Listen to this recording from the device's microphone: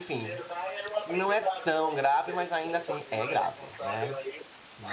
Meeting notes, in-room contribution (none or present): present